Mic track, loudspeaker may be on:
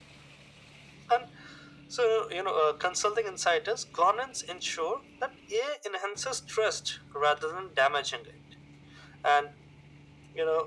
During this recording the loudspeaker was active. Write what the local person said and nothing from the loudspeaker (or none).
none